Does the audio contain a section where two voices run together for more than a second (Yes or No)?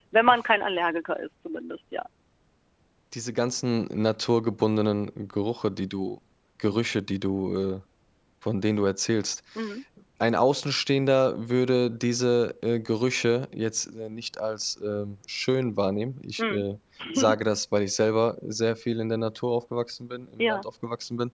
No